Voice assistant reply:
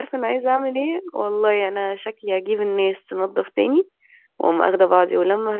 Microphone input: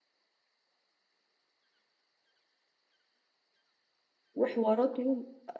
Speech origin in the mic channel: user only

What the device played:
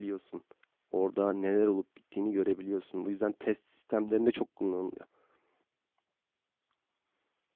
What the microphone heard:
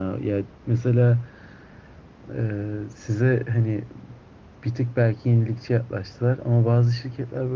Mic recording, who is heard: user only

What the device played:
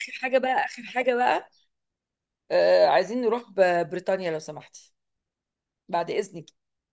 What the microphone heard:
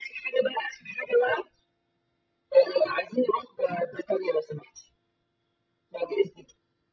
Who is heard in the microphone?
echo only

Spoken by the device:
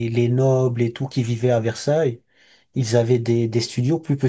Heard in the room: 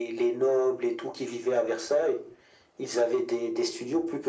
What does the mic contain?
echo only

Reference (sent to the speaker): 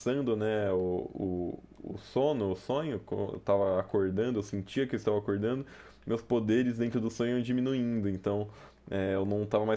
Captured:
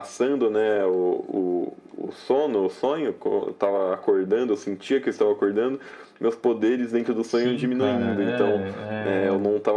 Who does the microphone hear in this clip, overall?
both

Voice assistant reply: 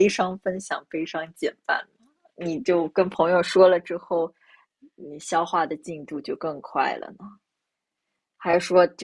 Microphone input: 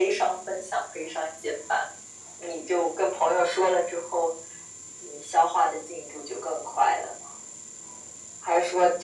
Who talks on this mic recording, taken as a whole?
echo only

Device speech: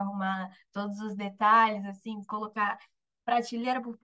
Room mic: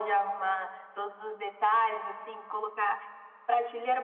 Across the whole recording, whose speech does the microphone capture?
echo only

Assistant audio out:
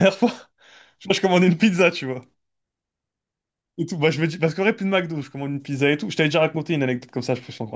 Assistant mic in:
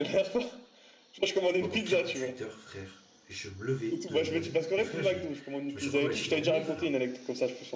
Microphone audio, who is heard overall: both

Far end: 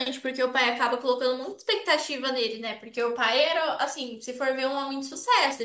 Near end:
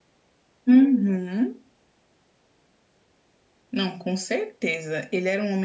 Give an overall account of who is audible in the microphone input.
user only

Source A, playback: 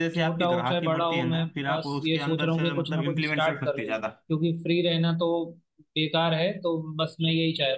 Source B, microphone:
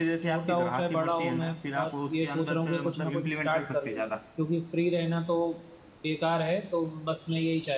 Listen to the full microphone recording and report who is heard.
echo only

